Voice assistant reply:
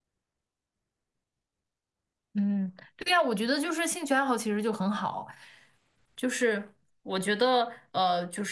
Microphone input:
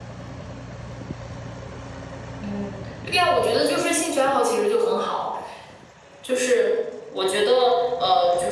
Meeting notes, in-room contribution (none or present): none